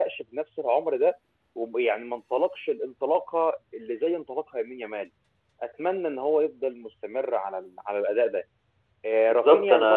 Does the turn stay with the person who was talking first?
No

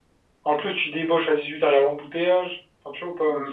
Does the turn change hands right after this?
Yes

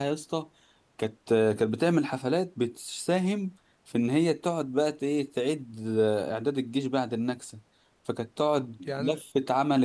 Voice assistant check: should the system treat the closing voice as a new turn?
No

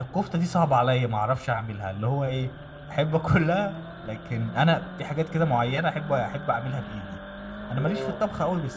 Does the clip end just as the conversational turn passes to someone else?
No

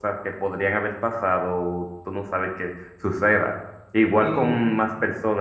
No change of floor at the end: Yes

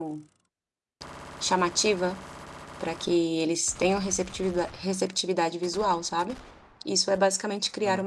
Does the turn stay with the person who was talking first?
No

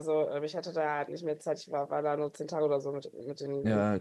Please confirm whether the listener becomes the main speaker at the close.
Yes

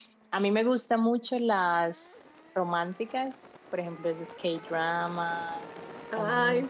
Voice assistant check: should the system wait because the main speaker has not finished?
No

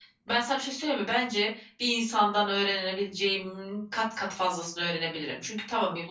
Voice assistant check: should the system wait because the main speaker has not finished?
Yes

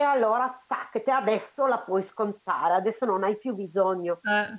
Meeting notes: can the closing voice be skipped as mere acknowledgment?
Yes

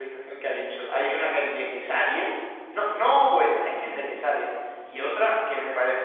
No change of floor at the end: Yes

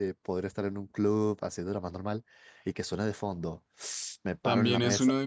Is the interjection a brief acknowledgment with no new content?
No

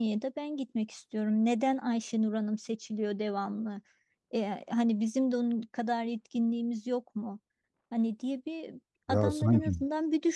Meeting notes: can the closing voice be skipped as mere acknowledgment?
Yes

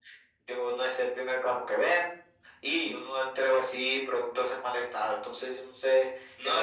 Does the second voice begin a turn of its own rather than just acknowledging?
Yes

